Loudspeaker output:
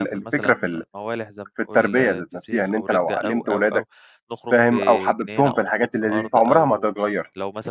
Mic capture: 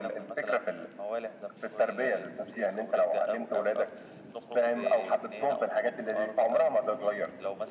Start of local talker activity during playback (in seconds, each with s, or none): none